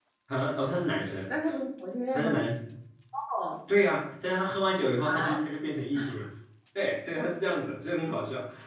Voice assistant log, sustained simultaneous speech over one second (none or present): none